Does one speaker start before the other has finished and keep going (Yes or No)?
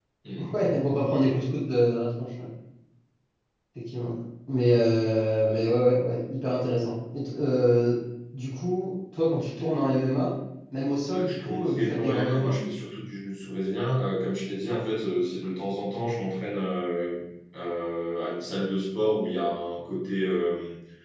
Yes